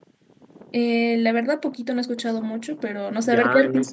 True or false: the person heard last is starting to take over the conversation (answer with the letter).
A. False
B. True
B